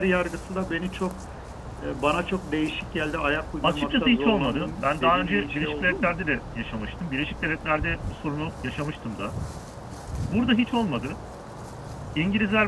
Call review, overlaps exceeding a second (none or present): present